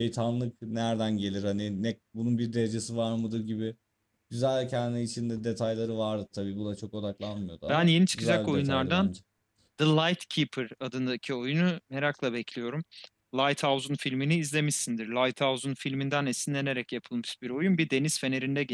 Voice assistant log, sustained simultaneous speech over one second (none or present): present